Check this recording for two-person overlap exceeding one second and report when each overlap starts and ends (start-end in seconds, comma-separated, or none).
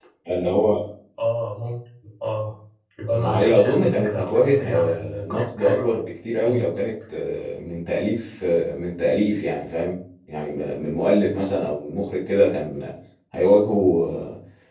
3.1-5.8